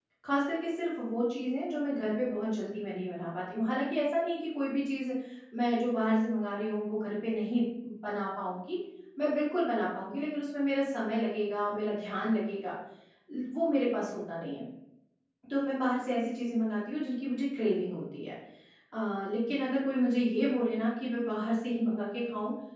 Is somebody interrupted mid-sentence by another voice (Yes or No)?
No